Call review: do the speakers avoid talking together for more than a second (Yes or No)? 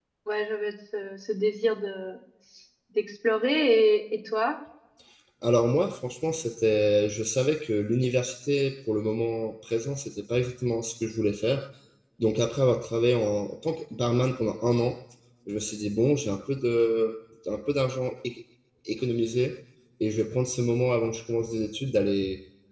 Yes